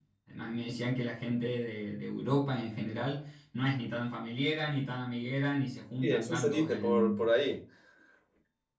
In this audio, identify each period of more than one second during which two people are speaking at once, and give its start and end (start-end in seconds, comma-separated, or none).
6.0-7.3